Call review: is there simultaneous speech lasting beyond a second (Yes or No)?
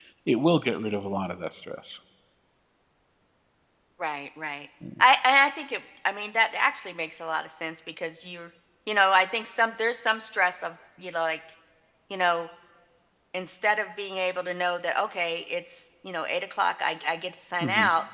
No